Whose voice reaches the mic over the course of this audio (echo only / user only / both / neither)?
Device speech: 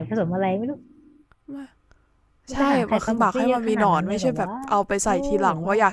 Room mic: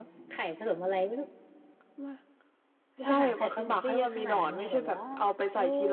echo only